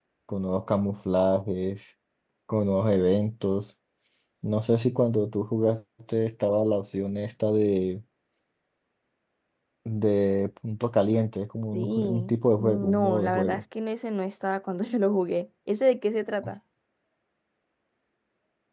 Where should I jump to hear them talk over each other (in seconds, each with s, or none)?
11.7 s